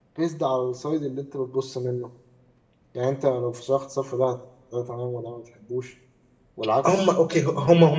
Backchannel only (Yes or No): No